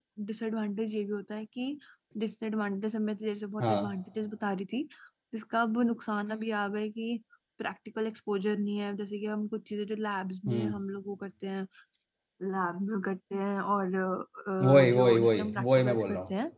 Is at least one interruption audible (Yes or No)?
Yes